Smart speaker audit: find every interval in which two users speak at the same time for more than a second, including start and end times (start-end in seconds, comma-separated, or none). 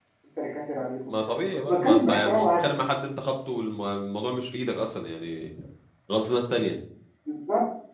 1.1-2.6